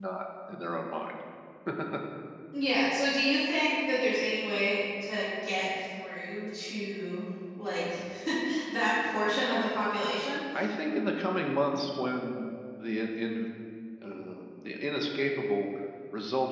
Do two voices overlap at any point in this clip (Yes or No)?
No